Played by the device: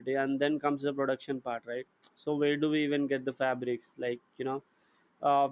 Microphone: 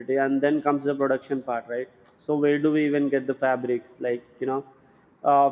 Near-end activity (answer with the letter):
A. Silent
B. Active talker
A